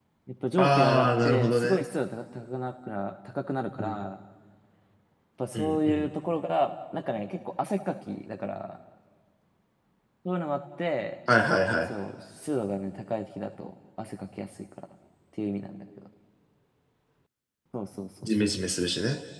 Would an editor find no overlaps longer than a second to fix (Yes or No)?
No